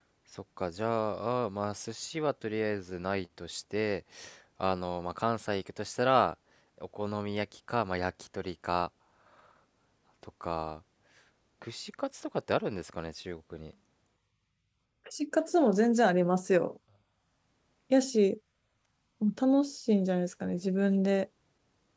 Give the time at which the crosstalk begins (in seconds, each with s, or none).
none